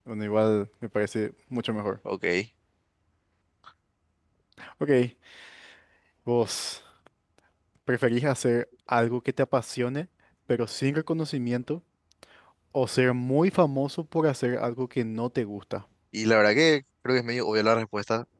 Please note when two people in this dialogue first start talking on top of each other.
none

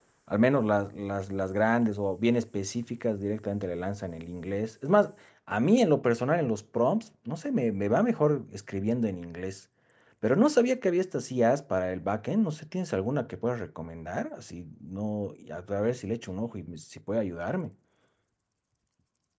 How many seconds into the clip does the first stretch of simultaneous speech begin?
none

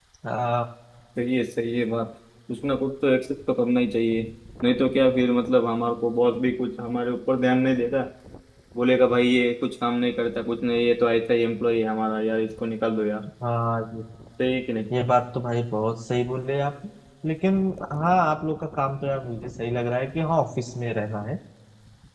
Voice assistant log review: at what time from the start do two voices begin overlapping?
none

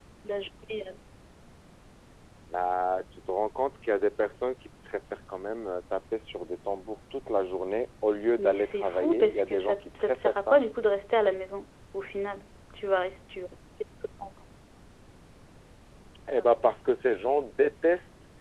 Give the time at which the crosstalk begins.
8 s

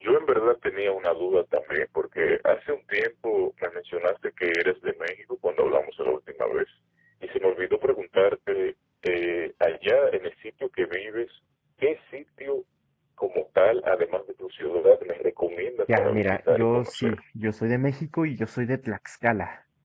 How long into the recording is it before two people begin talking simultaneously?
16 s

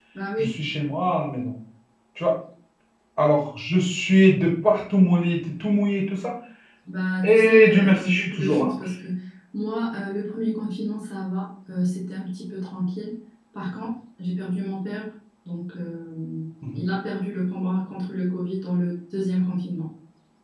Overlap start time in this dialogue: 7 s

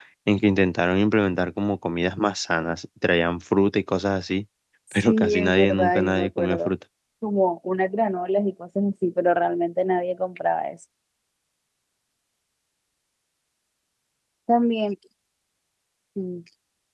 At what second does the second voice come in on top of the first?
5 s

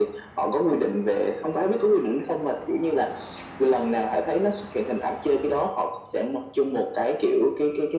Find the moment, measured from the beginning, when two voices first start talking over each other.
none

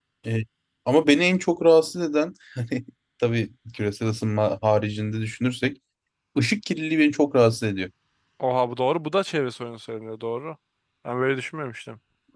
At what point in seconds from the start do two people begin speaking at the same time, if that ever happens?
none

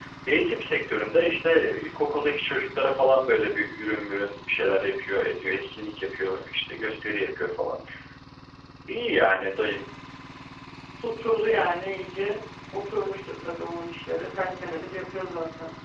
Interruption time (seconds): none

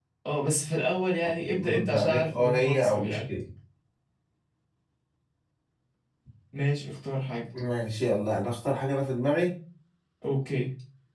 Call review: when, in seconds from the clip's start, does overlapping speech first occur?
1 s

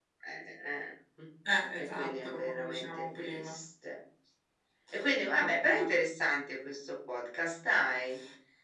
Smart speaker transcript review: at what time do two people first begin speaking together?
2 s

